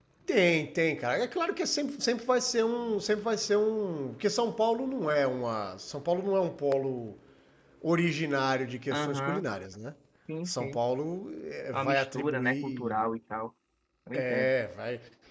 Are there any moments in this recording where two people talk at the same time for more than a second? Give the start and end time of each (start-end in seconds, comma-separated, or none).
11.7-13.0